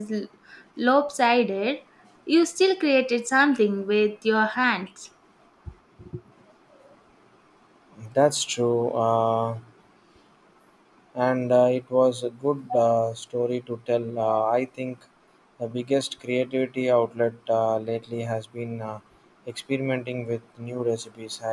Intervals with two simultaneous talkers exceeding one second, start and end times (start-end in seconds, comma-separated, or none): none